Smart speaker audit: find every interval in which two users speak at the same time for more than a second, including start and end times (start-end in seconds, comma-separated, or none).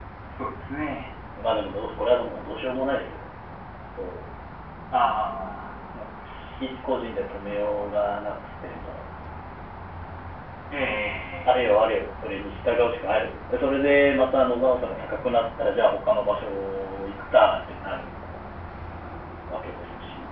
none